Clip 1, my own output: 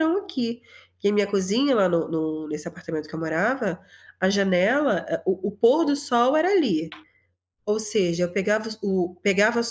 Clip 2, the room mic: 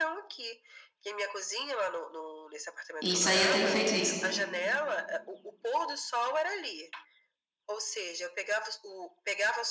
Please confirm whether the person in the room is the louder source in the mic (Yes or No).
Yes